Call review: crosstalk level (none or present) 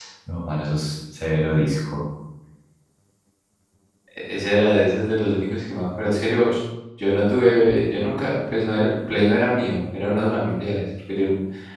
none